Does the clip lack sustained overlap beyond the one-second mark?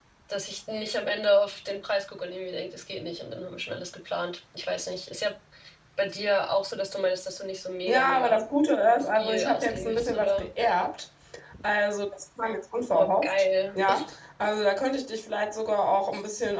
No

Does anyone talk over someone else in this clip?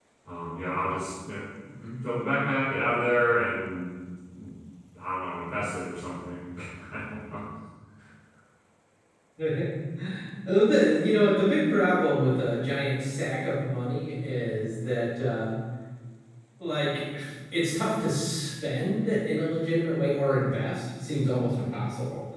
No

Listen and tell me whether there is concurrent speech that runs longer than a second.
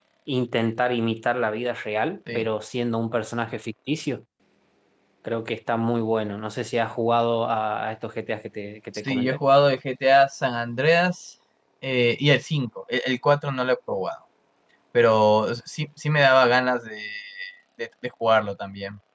No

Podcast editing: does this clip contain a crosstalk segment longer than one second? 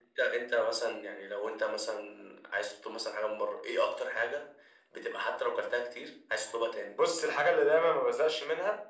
No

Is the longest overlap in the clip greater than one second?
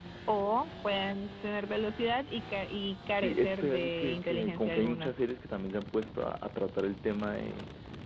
Yes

